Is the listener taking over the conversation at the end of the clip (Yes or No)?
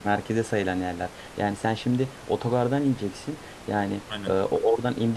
No